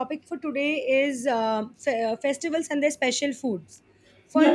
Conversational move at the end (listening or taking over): listening